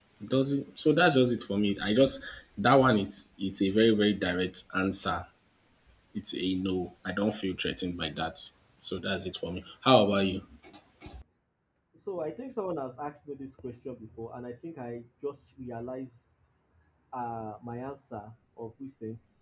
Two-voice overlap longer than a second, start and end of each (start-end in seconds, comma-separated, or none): none